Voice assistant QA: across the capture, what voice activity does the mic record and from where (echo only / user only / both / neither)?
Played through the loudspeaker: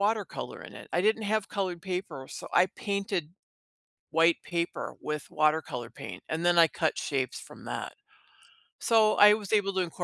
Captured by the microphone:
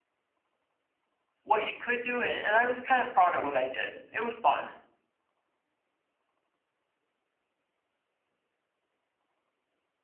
user only